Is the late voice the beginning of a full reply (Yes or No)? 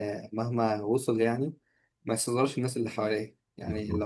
No